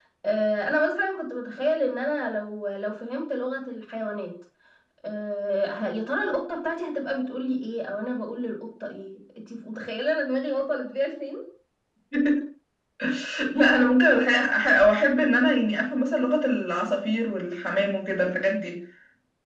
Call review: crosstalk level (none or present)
none